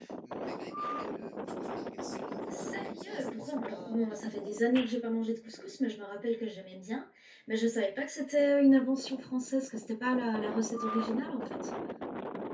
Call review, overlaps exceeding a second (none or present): present